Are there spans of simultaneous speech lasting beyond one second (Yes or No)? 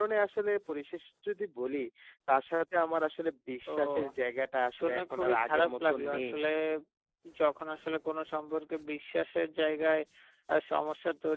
Yes